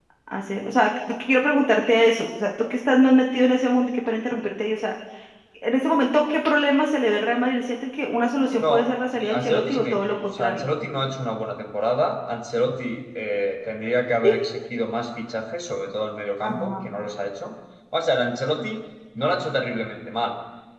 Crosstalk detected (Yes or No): Yes